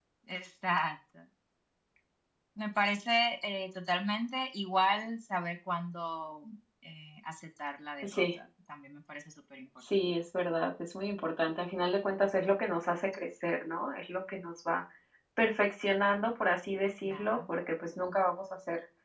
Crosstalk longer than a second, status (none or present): none